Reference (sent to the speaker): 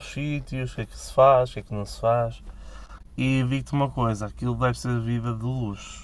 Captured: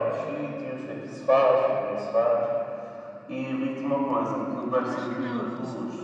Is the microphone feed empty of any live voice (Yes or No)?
No